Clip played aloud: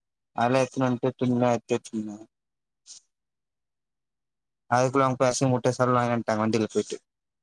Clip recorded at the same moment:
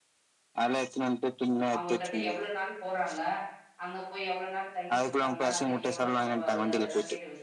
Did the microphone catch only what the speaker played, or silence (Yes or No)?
No